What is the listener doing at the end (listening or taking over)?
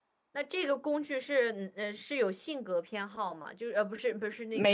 listening